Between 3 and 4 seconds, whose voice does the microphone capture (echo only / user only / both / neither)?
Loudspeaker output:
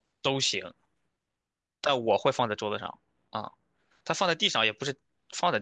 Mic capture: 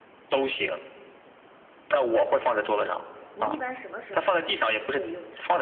both